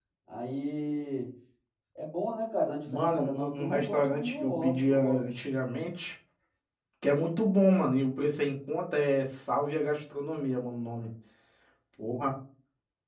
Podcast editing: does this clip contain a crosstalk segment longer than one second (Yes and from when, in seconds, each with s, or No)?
Yes, from 2.9 s